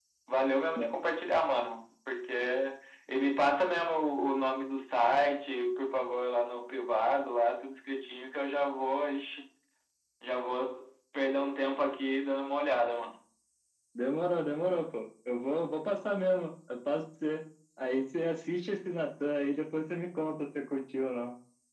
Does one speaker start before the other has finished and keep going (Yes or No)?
No